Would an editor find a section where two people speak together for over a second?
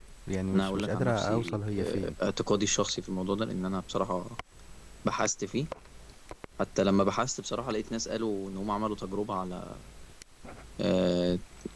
Yes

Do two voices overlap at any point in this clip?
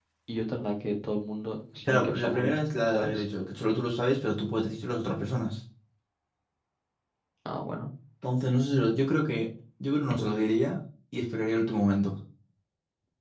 Yes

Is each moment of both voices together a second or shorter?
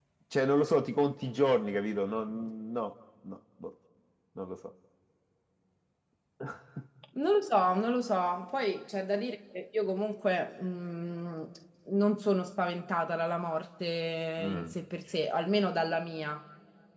Yes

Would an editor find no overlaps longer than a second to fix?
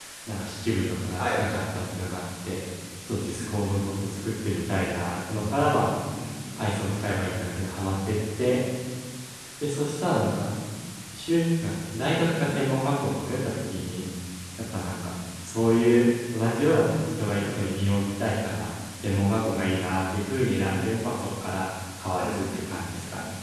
Yes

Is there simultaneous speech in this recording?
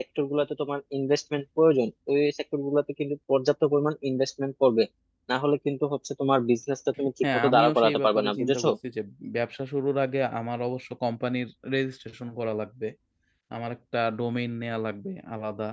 Yes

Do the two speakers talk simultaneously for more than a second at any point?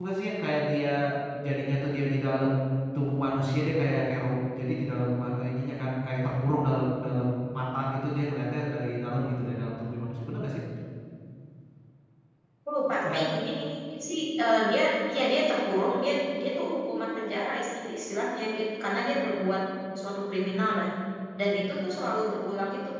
No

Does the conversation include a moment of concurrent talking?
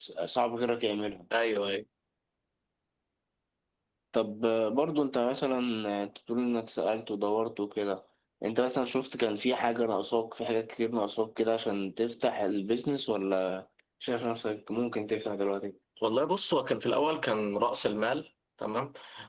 No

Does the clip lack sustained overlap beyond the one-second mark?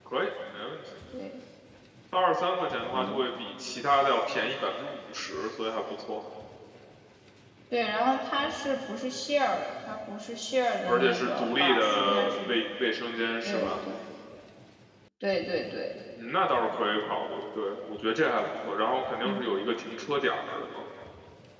No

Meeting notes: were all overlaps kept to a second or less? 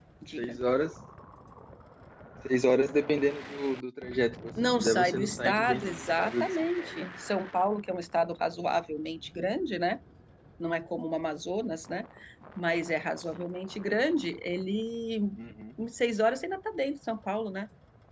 No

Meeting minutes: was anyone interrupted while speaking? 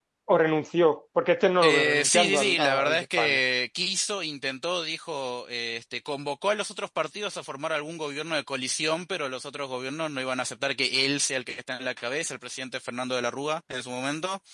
Yes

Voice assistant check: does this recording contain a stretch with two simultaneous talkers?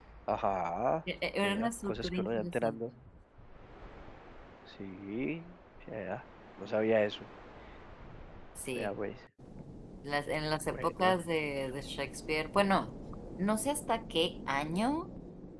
Yes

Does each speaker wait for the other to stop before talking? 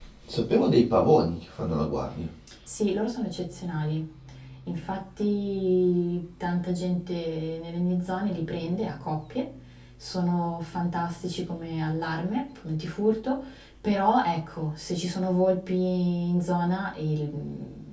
Yes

